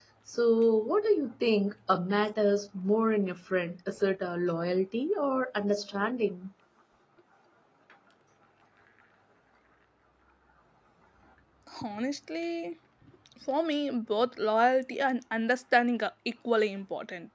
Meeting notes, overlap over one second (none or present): none